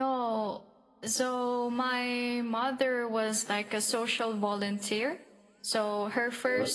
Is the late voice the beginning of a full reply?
No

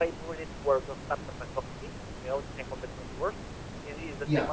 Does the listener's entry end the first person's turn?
No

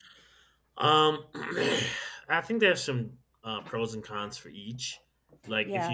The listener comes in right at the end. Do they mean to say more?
No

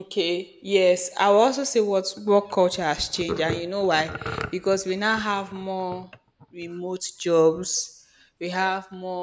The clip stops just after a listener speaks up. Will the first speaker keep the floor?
Yes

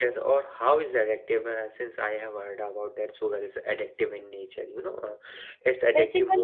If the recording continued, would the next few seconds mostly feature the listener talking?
Yes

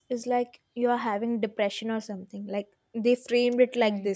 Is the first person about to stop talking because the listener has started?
Yes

